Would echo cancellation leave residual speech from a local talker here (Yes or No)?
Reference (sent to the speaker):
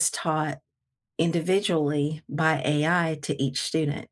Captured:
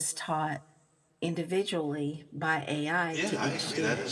Yes